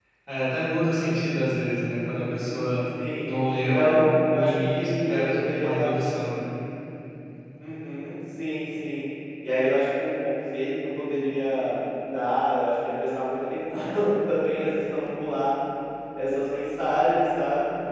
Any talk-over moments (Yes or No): Yes